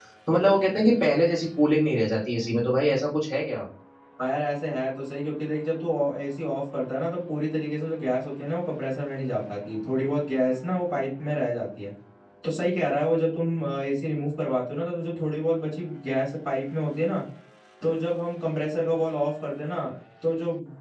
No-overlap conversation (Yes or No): Yes